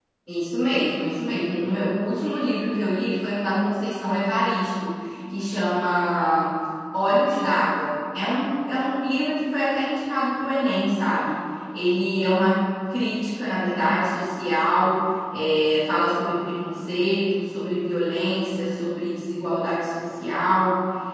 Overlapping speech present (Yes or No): No